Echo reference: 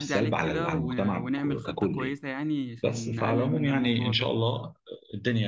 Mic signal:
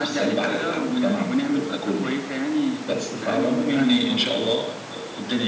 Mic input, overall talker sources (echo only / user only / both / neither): echo only